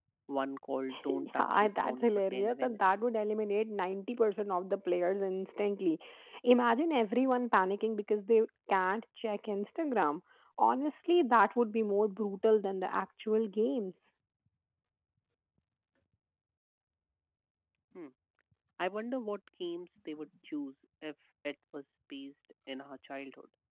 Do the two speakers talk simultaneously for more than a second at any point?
Yes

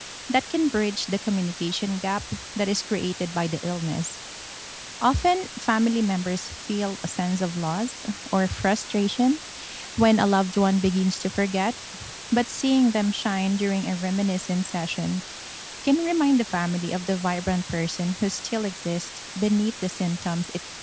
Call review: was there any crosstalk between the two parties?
No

